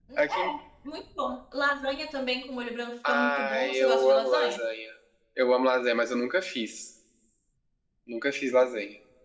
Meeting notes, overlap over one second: present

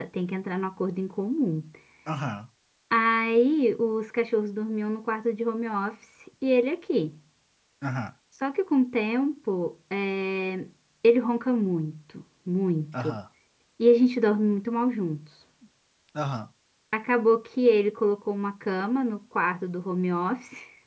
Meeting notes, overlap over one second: none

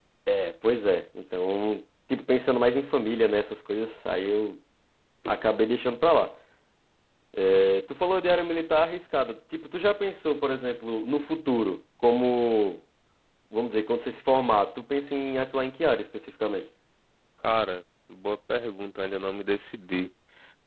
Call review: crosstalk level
none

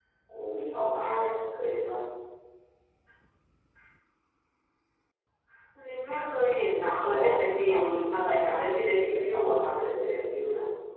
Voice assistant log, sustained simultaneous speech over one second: present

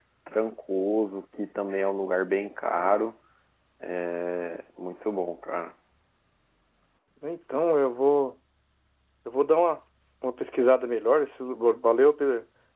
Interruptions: none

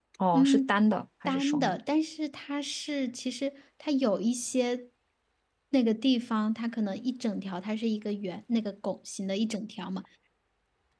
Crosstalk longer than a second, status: none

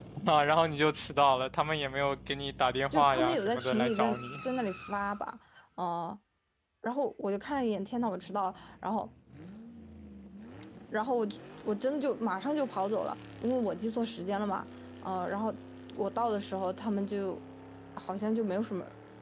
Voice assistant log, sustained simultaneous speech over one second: present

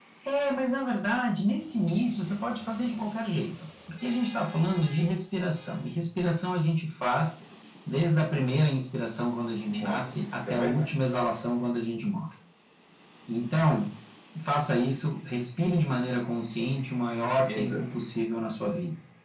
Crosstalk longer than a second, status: present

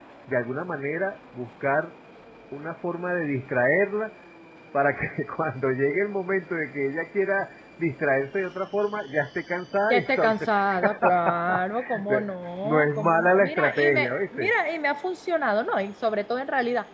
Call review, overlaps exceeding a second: present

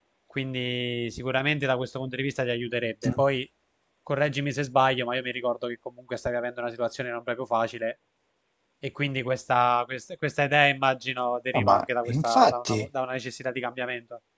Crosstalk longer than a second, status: present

